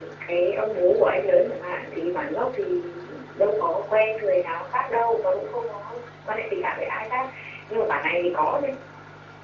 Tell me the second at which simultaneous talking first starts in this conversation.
none

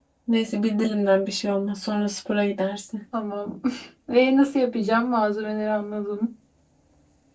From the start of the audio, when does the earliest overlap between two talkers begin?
none

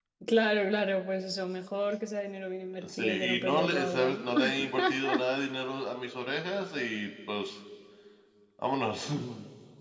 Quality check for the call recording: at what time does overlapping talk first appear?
3 s

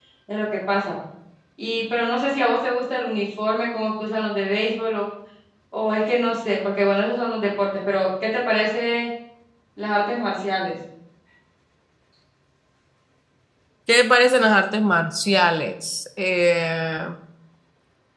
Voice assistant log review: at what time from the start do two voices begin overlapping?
none

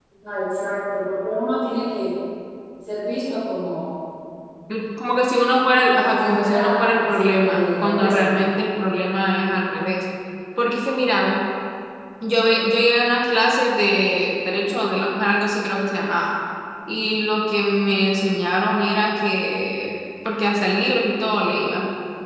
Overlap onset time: 6 s

